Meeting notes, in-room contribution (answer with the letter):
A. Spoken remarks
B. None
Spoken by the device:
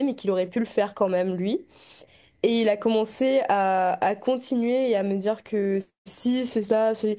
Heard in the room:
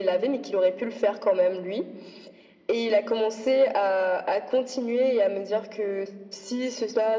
B